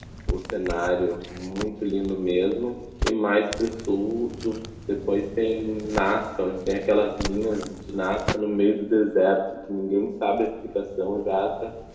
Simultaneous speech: No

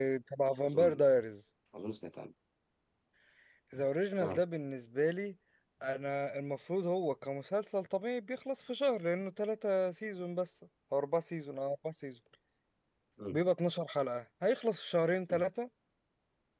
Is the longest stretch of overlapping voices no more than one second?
Yes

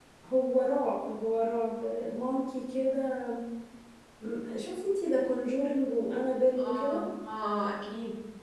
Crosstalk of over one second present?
No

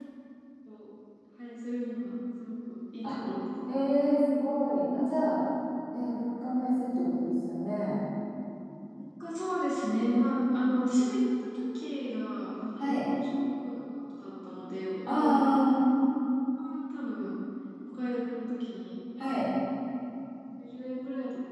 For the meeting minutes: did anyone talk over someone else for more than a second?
No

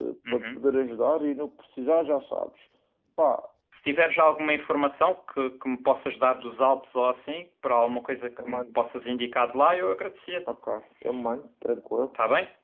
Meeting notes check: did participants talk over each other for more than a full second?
No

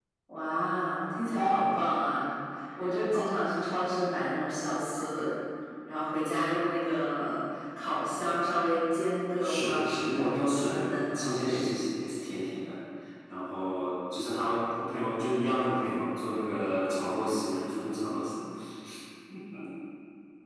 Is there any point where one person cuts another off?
Yes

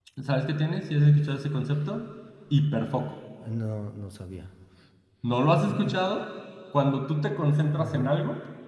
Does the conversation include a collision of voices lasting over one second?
No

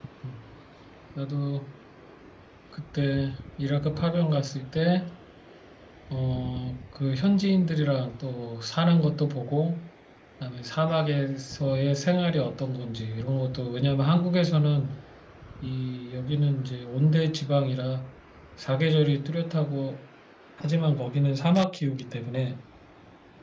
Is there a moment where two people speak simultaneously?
No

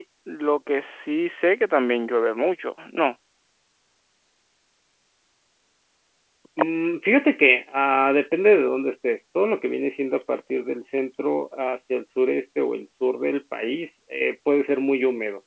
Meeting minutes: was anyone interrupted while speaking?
No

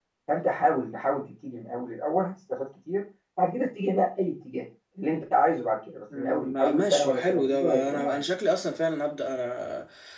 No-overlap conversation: No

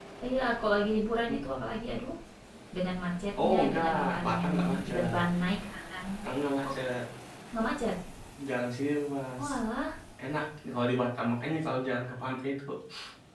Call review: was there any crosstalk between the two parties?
Yes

